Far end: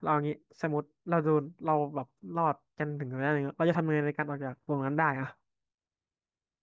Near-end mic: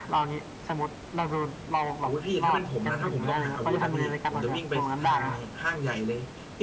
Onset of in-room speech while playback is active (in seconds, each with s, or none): 2.0 s